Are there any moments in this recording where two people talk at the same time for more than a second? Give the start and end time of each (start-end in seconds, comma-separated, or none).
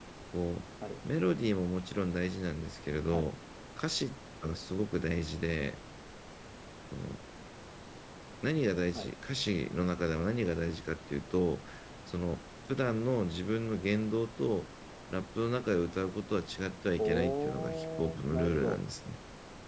17.0-18.8